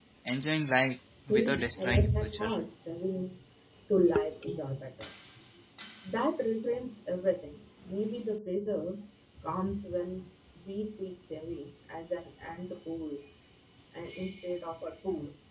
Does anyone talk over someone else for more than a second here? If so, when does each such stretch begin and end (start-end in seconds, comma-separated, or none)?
1.3-2.5